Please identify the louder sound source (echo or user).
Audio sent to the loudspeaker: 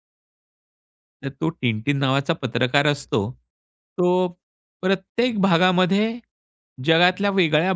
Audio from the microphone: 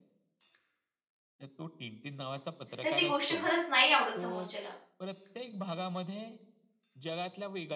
user